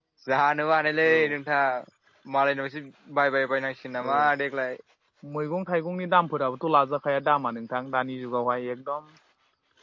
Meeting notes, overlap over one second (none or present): none